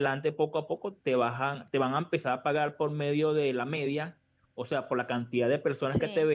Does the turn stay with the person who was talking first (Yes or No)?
Yes